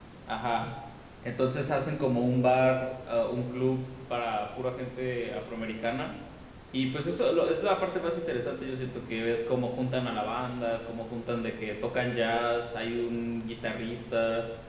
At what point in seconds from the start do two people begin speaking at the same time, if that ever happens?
none

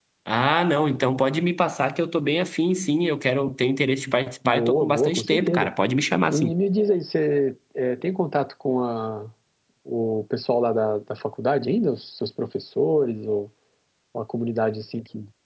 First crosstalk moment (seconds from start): 4.5 s

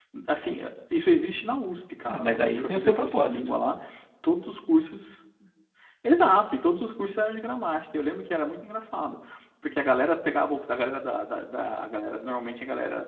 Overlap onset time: 2.1 s

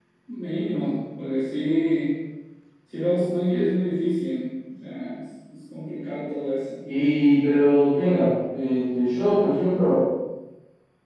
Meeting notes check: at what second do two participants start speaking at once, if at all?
none

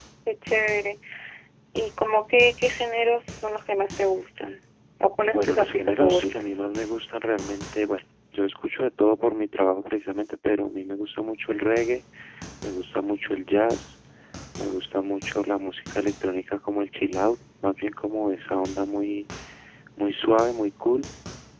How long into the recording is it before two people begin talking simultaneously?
5.3 s

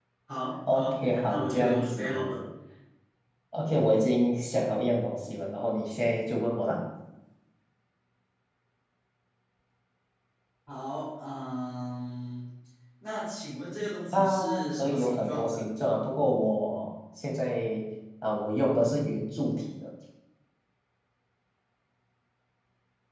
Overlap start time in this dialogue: 0.7 s

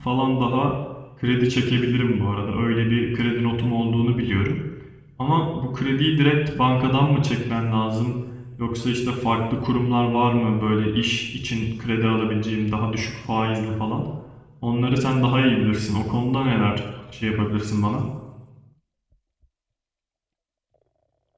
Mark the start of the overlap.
none

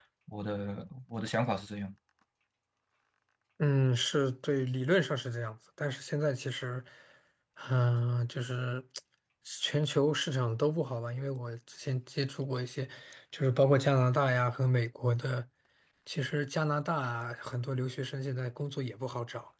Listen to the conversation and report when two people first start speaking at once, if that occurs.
none

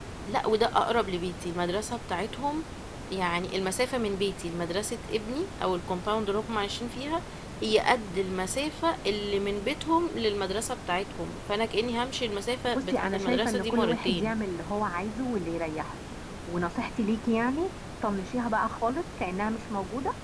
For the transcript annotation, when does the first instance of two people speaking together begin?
12.8 s

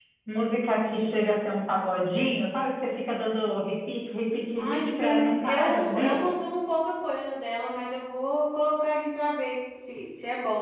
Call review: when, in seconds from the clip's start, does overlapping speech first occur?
4.6 s

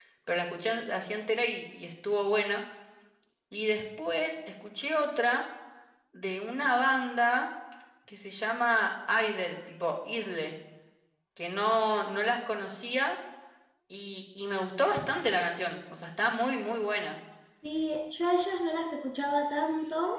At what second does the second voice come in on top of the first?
none

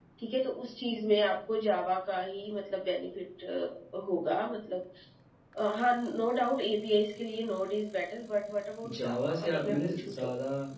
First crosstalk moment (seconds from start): 8.8 s

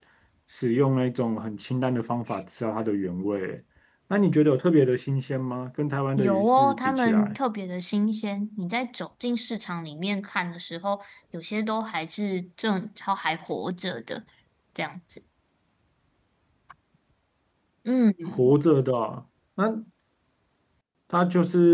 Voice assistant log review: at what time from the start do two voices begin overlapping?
6.2 s

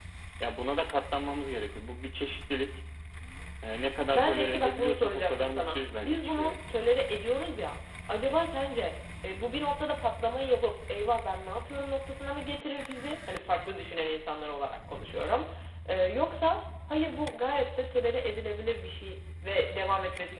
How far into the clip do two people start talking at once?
4.1 s

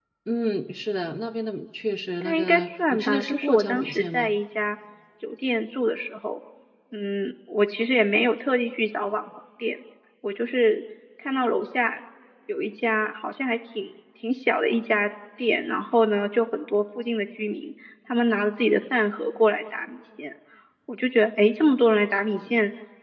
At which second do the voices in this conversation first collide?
2.2 s

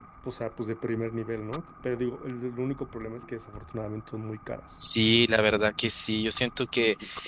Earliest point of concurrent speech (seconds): none

